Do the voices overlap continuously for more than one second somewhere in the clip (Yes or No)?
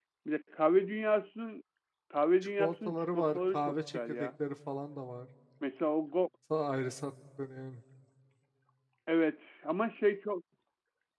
Yes